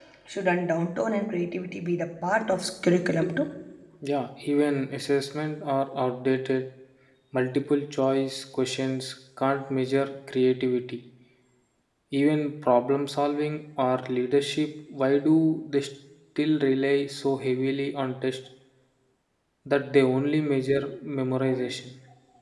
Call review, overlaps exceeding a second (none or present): none